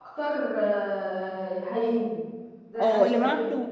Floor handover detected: Yes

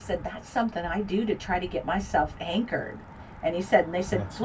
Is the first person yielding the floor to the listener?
No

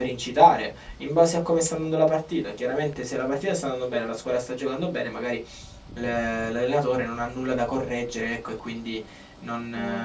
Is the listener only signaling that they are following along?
Yes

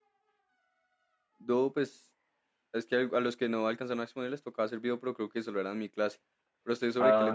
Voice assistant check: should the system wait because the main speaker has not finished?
No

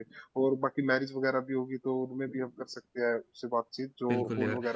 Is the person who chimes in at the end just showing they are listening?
No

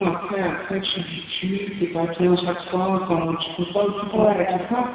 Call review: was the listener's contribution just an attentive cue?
Yes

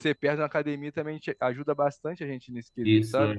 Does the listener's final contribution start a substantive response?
Yes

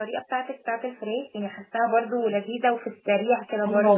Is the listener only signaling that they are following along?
No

